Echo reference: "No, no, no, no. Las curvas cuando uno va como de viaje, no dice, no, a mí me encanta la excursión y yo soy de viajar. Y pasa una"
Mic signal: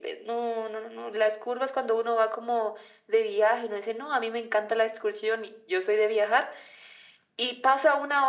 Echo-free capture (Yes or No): No